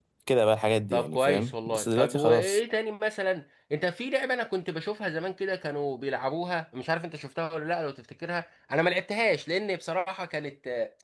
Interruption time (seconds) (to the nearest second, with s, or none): 1 s